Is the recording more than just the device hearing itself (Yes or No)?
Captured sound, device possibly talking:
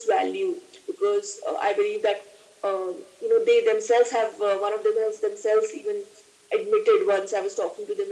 No